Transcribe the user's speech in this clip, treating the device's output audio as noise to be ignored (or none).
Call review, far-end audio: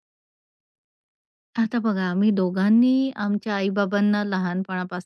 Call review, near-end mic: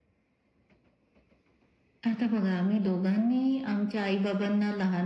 none